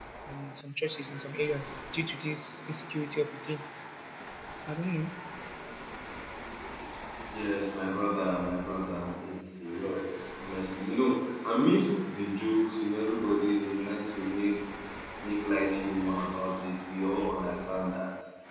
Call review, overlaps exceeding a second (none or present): none